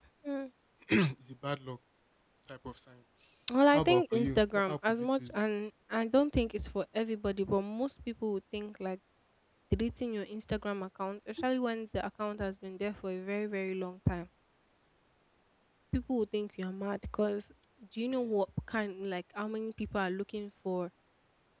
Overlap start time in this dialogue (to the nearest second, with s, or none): 4 s